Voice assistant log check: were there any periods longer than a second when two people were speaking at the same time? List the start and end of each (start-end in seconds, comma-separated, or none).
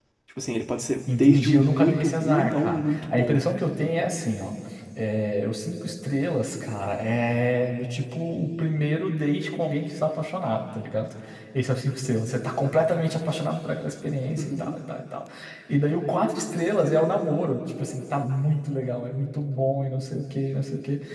1.1-3.4